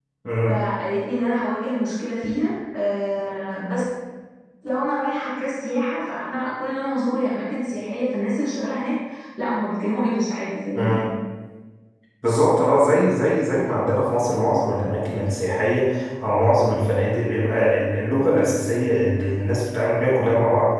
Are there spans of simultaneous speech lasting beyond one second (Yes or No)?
No